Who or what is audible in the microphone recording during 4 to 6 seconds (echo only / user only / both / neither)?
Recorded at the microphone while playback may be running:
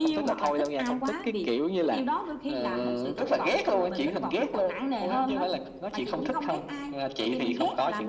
echo only